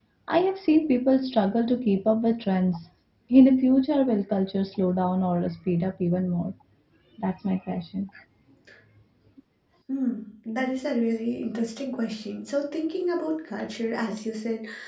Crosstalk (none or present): none